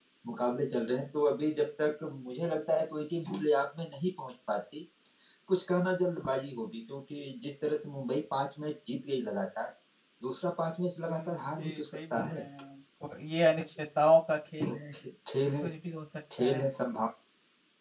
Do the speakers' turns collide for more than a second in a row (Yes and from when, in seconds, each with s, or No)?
Yes, from 11.1 s